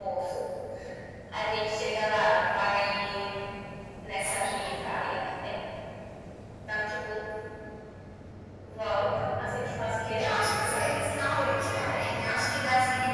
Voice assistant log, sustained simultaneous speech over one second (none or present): present